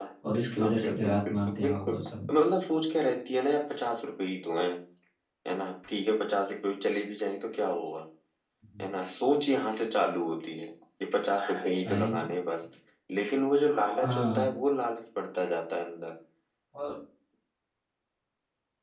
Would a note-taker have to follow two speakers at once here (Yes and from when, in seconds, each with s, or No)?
Yes, from 0.6 s